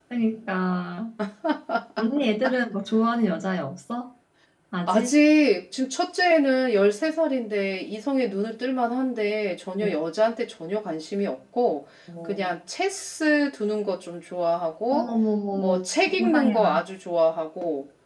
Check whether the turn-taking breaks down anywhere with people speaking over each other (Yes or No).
Yes